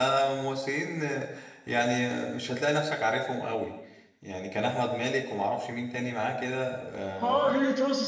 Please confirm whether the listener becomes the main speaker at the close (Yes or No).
Yes